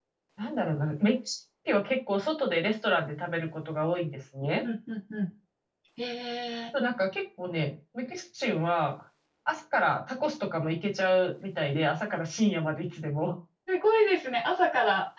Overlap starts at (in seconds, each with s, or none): none